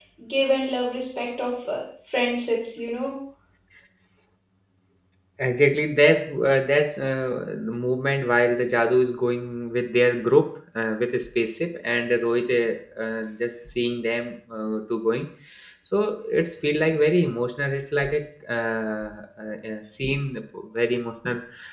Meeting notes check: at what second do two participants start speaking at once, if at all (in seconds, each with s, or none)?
none